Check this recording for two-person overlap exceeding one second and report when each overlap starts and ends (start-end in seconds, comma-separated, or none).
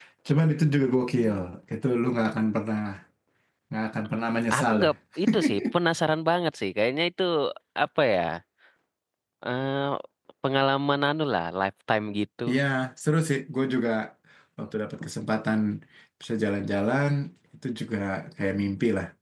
none